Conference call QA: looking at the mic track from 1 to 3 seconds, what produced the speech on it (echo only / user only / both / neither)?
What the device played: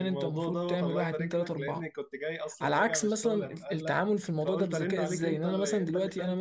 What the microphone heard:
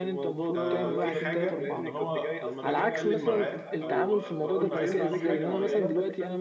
both